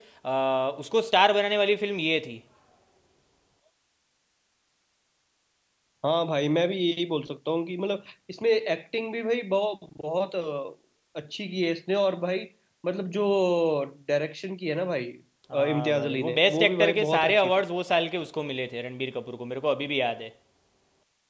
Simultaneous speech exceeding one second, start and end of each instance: 15.5-17.6

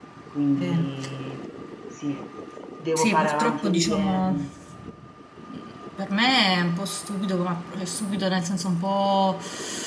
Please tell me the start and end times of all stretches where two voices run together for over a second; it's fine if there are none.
3.0-4.4

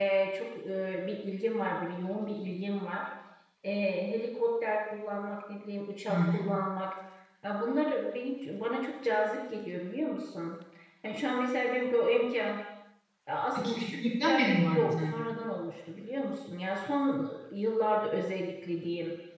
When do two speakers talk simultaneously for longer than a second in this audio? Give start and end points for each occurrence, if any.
13.6-15.2

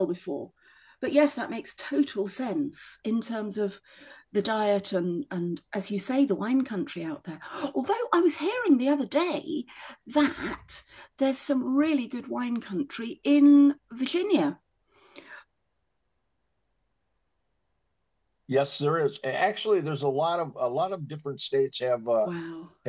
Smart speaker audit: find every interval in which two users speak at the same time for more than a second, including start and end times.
none

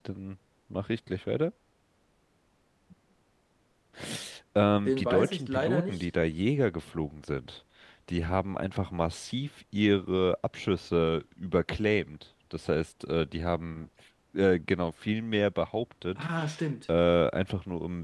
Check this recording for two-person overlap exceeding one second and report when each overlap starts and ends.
4.8-6.0

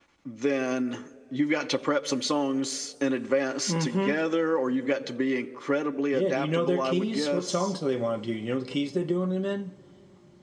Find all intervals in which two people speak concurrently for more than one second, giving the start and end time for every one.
6.1-7.7

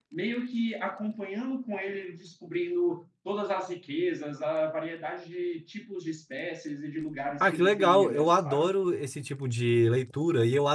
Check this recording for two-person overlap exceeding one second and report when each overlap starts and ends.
7.4-8.7

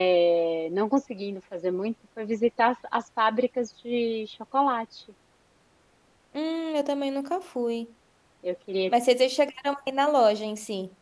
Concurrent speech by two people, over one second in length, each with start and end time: none

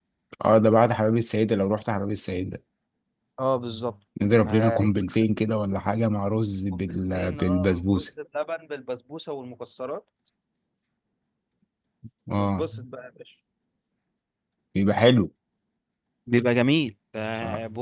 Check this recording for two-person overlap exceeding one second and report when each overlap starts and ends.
6.7-8.0

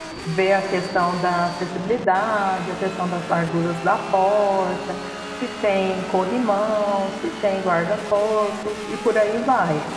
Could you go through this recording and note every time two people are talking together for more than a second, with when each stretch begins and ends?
none

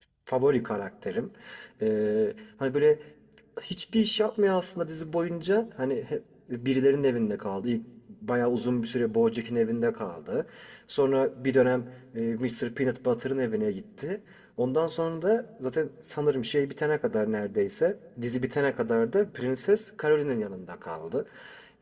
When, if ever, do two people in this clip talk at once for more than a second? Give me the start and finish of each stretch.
none

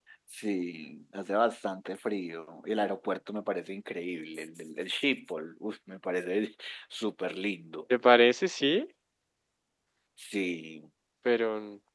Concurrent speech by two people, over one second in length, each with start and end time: none

